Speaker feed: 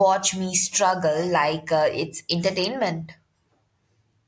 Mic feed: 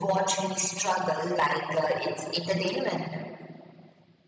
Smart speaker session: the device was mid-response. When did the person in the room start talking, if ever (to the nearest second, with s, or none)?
none